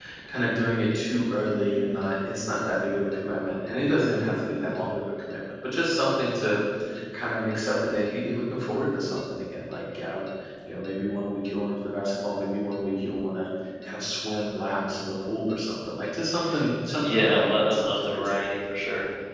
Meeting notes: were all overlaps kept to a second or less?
No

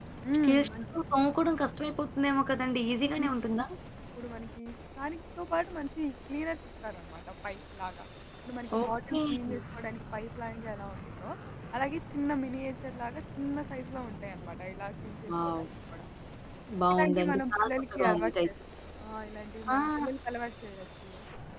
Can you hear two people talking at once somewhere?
Yes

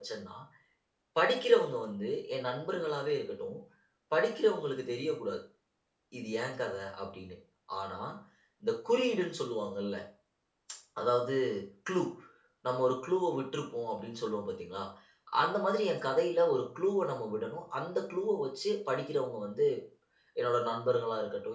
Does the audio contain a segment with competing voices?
No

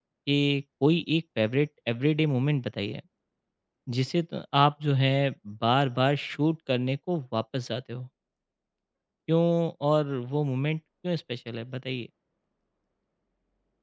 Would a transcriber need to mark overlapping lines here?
No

